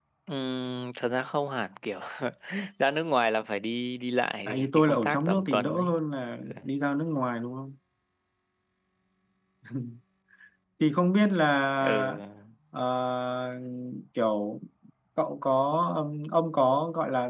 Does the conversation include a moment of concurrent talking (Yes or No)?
Yes